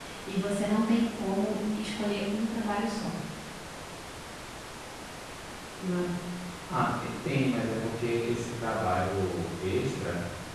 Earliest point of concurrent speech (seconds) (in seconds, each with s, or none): none